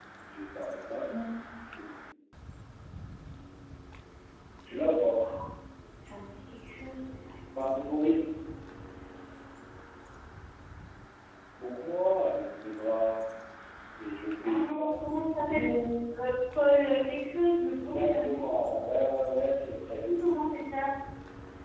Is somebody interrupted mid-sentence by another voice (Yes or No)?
Yes